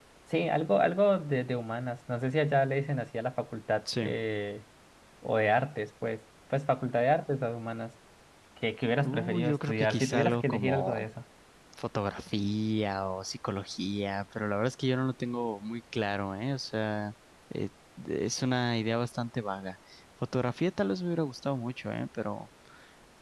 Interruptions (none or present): present